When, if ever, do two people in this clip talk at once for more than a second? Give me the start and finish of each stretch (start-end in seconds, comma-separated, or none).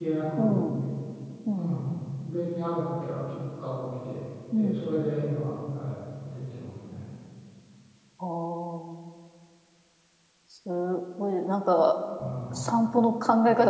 none